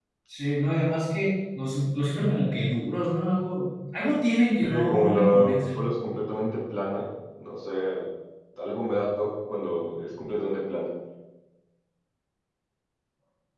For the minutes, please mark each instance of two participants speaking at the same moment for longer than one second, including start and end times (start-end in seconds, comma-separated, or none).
4.6-5.8